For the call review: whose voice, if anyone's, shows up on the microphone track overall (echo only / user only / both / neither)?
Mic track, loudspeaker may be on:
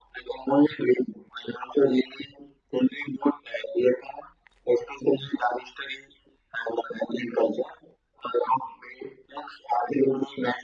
echo only